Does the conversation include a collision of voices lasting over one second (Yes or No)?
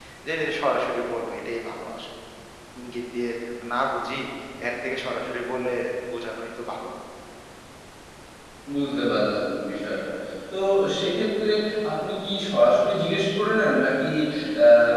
No